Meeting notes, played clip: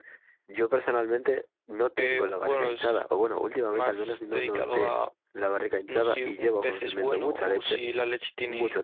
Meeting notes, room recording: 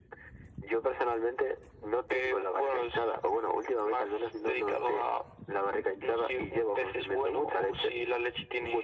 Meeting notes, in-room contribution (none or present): none